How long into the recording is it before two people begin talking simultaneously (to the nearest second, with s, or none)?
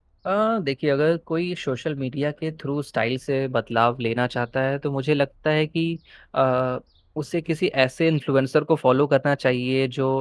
none